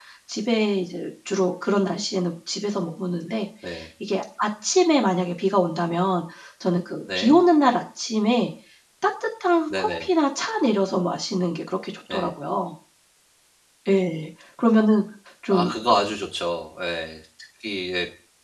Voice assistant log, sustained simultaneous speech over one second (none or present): none